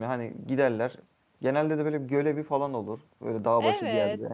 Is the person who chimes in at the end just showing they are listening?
No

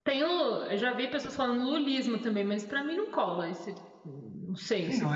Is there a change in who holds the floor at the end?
Yes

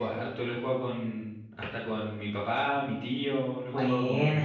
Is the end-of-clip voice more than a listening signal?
No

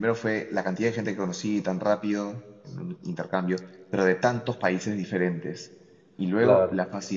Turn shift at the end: No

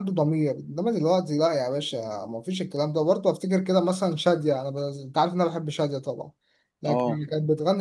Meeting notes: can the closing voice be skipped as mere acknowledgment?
Yes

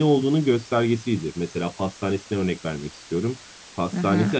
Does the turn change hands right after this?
No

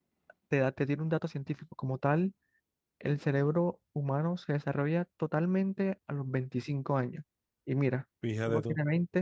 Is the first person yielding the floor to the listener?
No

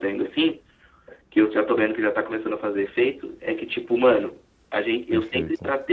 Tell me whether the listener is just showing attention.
Yes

